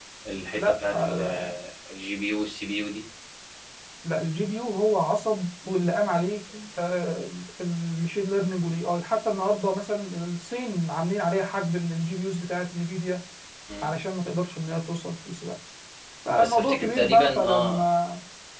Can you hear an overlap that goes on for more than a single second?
Yes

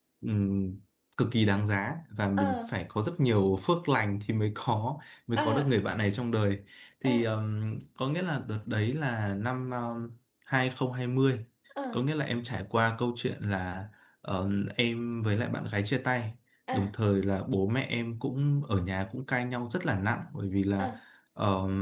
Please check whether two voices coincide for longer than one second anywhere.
No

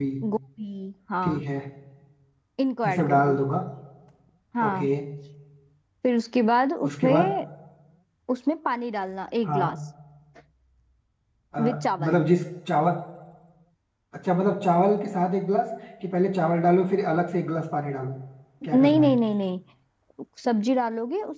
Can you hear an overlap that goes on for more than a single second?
No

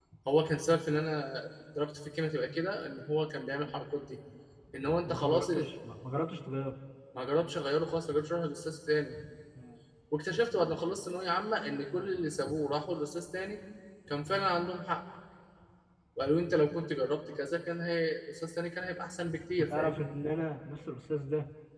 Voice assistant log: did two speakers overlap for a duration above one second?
No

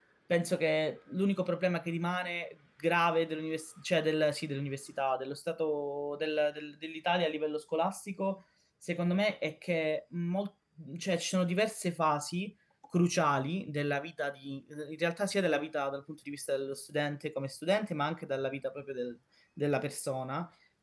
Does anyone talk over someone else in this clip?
No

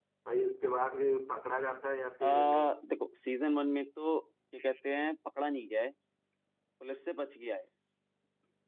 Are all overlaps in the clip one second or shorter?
Yes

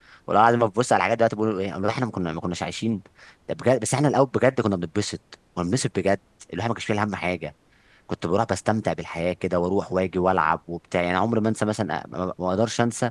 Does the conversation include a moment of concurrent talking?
No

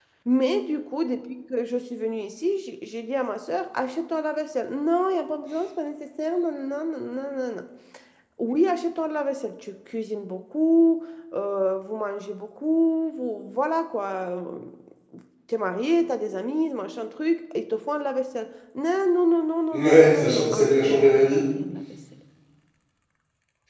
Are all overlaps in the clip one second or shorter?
No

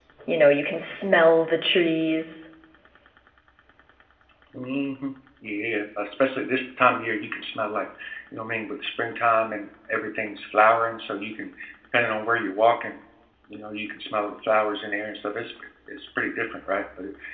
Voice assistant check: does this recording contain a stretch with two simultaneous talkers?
No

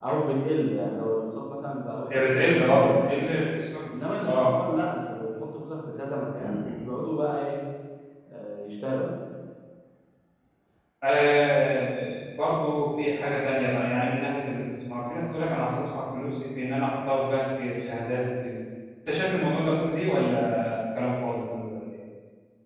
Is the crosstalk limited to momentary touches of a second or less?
No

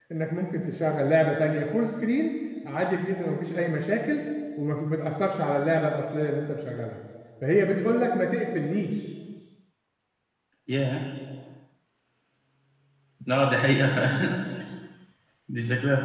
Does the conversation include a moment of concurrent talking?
No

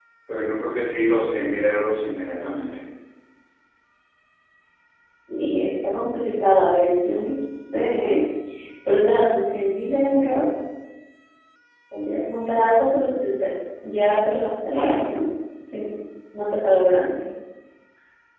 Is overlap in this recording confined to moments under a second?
Yes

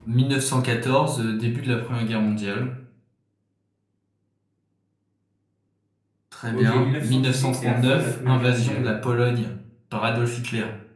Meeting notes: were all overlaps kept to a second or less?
No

